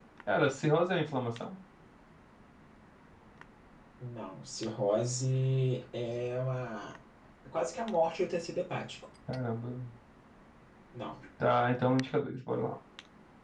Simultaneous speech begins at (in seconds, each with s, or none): none